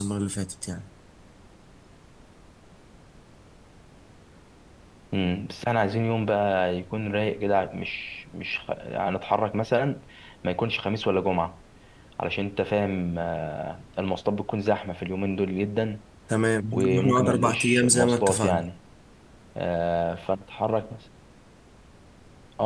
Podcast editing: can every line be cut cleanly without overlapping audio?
No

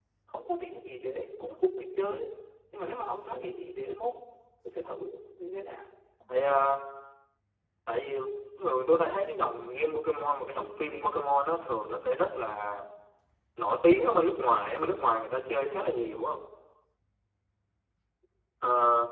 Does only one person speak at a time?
Yes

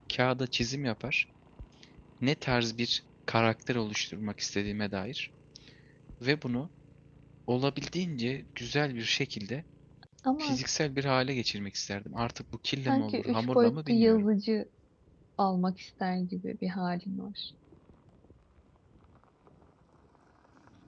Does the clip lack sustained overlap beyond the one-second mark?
No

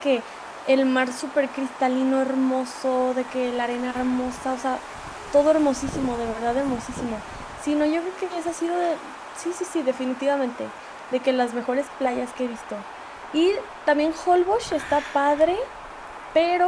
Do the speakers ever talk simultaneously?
No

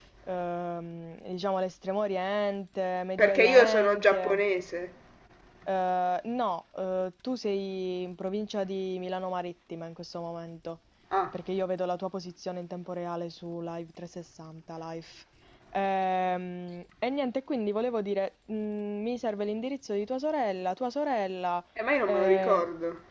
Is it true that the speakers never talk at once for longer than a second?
No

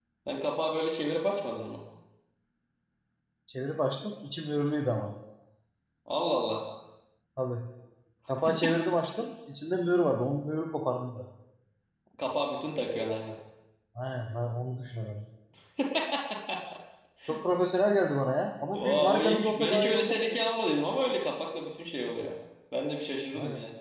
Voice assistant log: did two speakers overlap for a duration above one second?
Yes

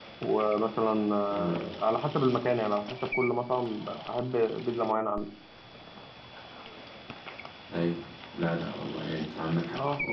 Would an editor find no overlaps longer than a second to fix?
Yes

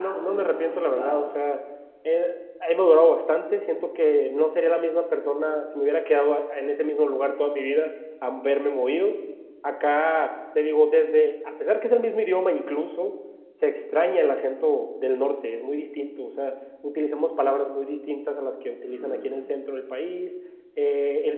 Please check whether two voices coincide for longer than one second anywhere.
Yes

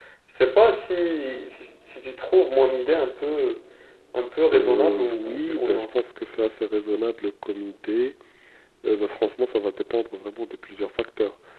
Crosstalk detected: Yes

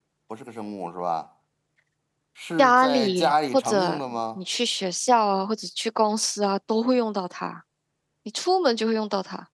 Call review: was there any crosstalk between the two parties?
Yes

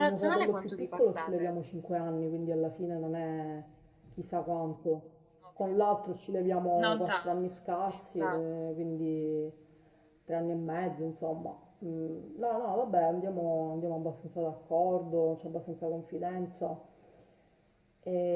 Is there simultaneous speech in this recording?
Yes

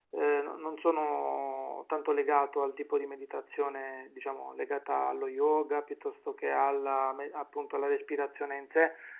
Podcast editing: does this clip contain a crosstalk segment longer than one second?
No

